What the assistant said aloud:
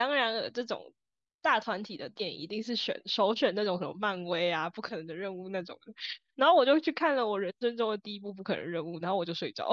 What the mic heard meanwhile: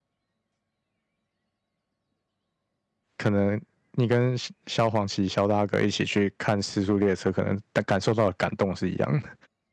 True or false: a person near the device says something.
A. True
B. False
A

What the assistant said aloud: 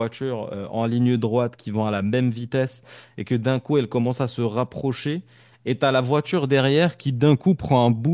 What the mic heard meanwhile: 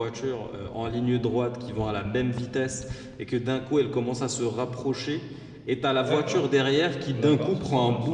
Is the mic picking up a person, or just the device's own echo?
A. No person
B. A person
B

